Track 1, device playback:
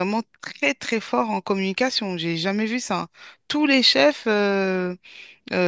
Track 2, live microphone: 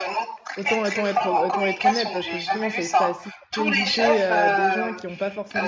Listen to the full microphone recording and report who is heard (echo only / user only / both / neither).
both